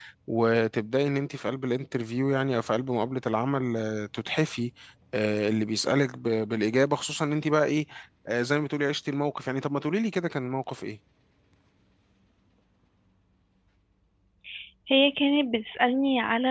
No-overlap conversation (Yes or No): Yes